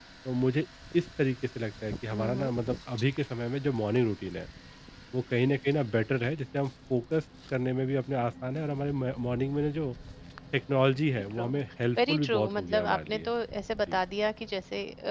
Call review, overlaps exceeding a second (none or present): present